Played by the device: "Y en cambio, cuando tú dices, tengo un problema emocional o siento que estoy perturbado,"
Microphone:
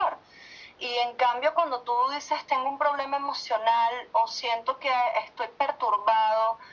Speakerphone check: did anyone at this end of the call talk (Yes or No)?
No